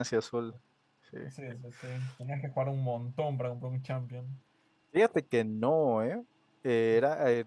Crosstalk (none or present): none